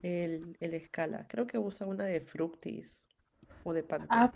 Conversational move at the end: taking over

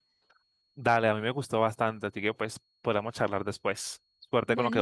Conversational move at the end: taking over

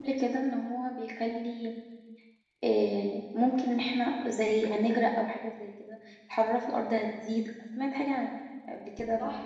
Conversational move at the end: taking over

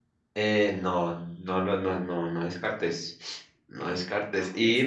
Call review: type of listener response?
listening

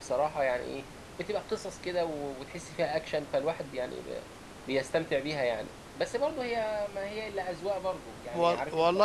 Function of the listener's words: taking over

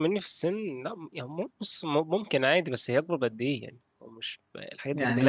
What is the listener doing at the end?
taking over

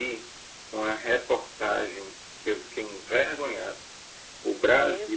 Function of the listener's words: listening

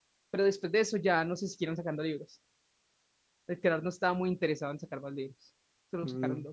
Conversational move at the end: taking over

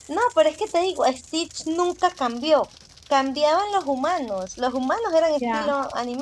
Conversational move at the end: taking over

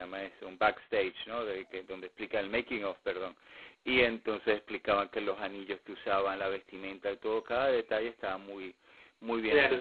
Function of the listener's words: taking over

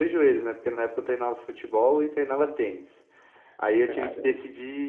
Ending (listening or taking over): listening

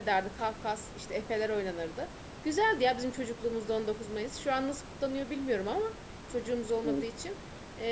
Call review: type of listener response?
listening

